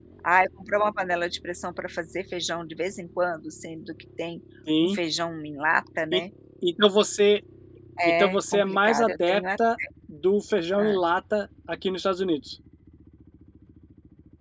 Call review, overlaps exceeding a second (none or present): present